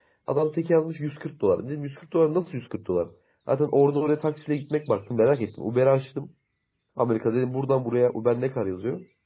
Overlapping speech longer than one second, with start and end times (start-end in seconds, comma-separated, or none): none